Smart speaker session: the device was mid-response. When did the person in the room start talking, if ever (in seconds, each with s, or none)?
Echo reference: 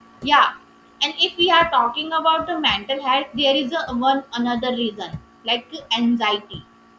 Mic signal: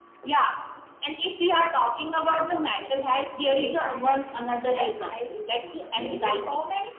2.1 s